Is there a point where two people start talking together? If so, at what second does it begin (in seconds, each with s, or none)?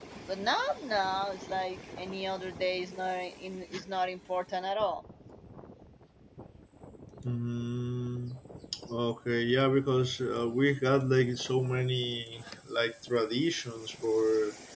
none